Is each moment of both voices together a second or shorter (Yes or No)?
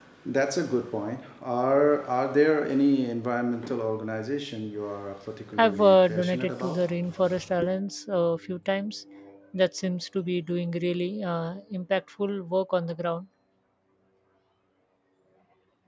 No